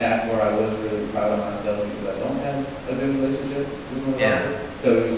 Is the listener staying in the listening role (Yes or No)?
Yes